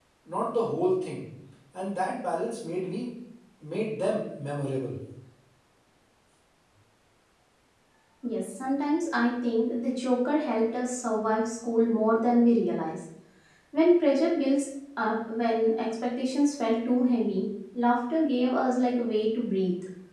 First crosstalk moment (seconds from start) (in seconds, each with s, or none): none